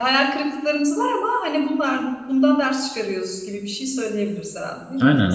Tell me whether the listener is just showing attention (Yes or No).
No